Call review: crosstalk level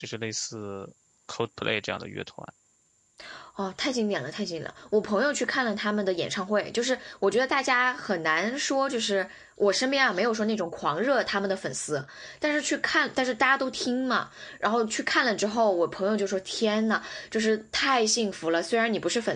none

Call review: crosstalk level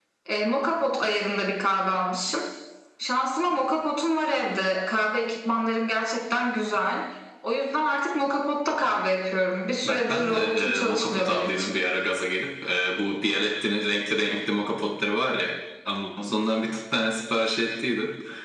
present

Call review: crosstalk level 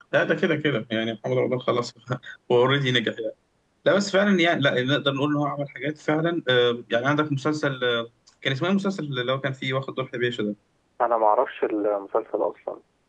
none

